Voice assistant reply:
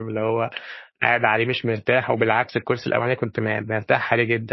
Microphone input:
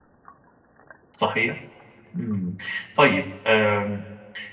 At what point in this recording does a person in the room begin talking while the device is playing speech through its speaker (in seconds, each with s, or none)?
1.1 s